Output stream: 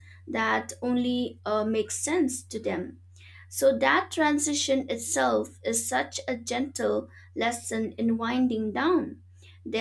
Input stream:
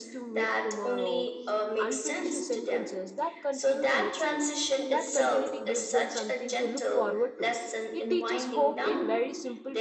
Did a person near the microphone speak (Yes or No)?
Yes